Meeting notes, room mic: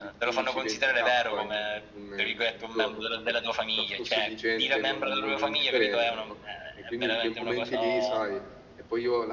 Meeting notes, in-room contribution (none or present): present